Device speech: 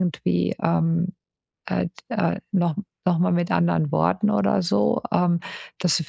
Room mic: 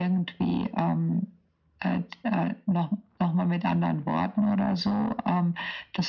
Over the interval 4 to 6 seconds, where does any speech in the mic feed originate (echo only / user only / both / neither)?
echo only